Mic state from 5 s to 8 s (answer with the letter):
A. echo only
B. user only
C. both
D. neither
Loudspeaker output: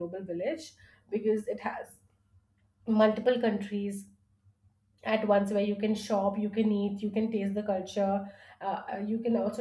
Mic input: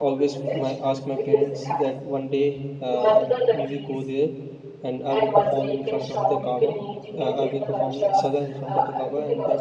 C